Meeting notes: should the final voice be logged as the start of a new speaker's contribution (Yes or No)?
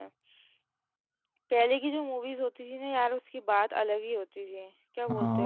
Yes